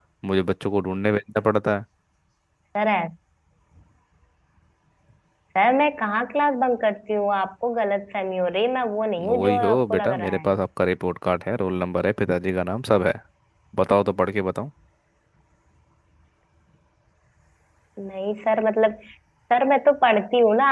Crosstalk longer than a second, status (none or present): present